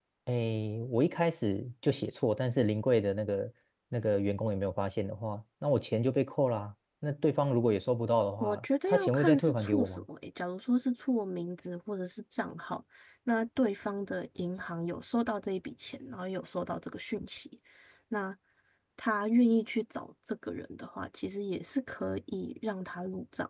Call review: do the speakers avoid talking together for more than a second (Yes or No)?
No